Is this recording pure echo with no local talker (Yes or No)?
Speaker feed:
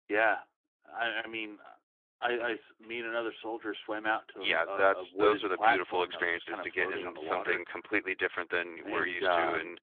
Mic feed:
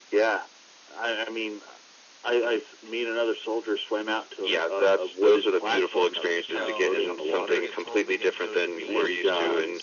No